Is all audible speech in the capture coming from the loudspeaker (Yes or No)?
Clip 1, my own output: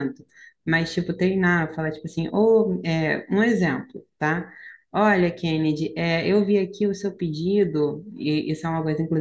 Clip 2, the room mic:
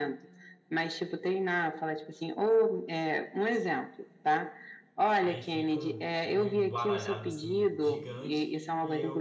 No